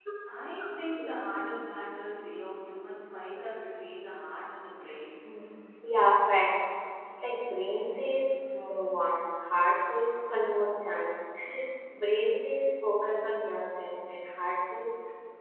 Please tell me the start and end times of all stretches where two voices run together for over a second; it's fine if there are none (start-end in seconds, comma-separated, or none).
none